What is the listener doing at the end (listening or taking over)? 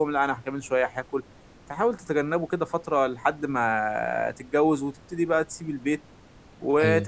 listening